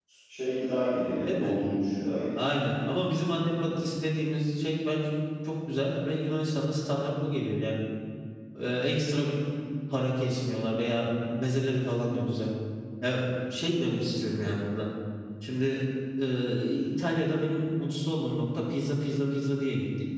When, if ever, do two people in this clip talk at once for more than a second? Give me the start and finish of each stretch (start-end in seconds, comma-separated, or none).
none